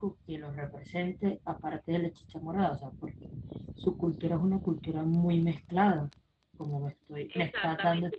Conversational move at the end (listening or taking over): taking over